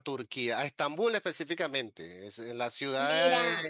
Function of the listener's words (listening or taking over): listening